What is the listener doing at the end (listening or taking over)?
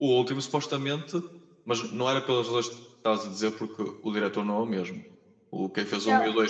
listening